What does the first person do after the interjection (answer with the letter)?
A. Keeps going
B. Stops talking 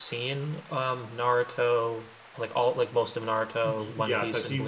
B